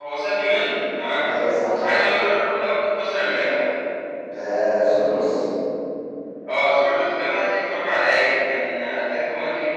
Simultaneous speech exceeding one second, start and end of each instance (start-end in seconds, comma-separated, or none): none